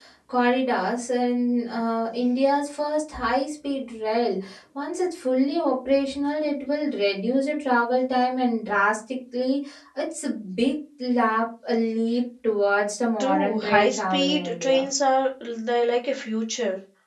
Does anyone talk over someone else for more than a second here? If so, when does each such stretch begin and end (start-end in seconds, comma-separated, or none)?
13.2-14.8